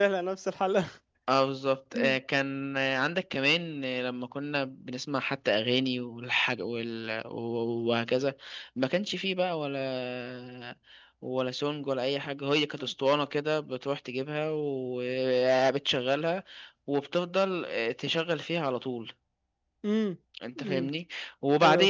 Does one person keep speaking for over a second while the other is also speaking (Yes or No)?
No